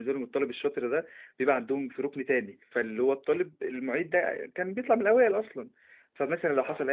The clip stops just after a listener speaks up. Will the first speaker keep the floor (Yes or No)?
Yes